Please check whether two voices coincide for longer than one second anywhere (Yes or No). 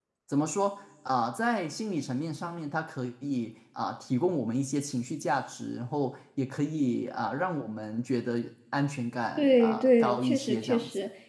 Yes